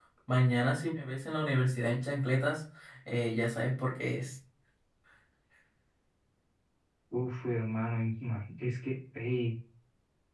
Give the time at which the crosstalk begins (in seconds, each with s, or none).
none